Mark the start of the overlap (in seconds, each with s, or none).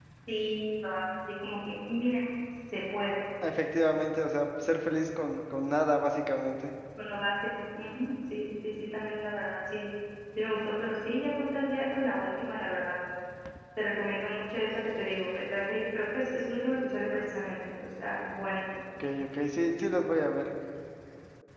none